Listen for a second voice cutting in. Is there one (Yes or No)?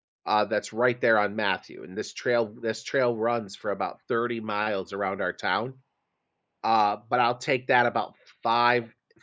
No